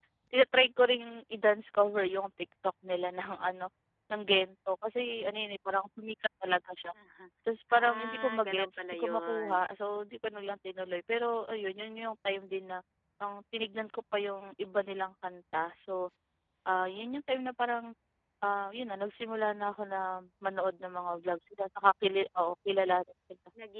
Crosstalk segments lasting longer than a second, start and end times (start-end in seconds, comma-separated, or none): 7.7-9.6